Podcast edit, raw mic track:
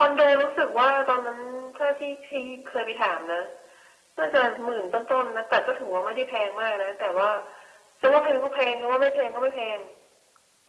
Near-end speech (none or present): none